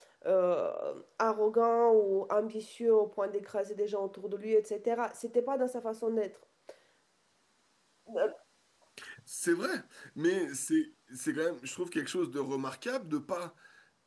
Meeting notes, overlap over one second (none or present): none